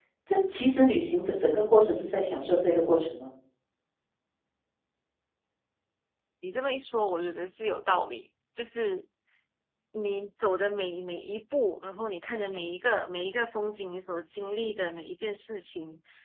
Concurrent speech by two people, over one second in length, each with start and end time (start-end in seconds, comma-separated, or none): none